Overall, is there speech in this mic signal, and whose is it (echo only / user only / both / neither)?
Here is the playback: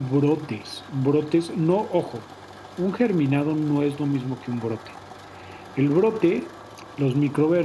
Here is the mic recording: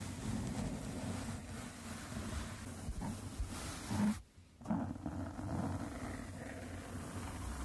neither